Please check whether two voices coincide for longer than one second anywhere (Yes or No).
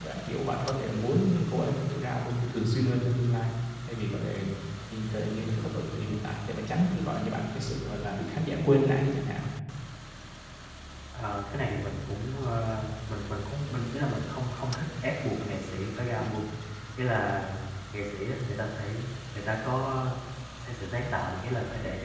No